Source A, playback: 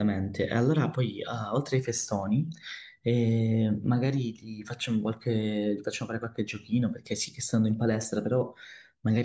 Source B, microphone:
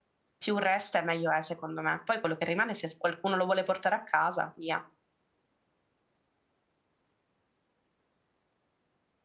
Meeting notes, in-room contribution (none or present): present